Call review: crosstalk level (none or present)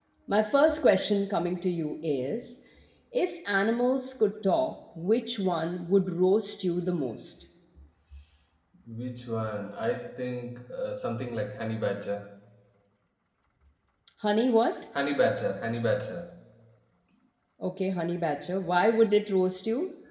none